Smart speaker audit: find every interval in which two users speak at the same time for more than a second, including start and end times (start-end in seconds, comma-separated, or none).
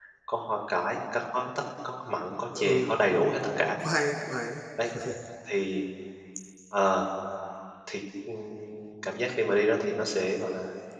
2.5-3.8